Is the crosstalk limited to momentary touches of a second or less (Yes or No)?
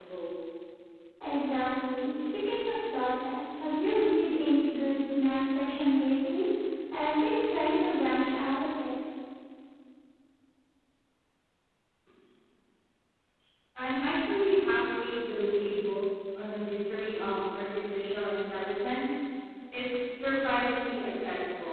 Yes